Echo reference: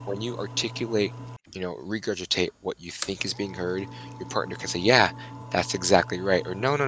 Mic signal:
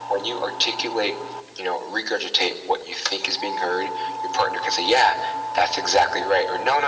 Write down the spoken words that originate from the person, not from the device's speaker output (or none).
none